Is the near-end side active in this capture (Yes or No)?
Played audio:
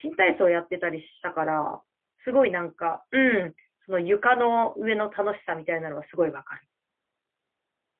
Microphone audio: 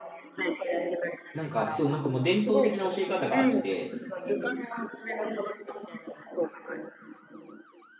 Yes